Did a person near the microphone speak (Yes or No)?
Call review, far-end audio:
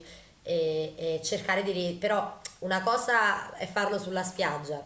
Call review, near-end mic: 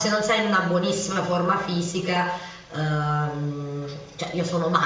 Yes